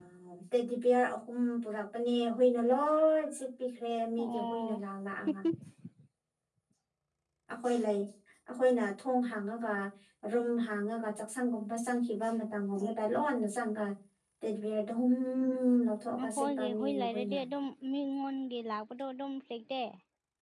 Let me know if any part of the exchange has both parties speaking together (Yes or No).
Yes